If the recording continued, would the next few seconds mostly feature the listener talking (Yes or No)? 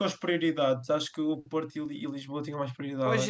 Yes